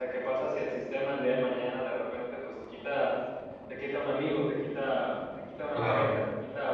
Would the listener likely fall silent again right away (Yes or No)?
Yes